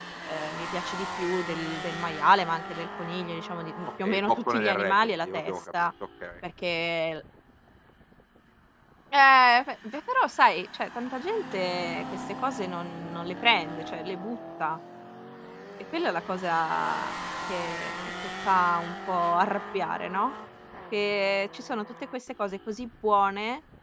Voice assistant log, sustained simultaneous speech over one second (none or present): present